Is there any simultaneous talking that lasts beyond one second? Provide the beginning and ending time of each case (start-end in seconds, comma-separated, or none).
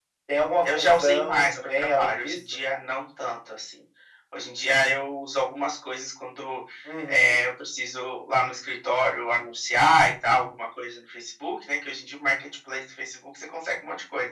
0.7-2.4